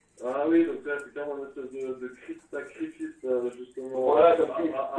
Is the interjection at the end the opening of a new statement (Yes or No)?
Yes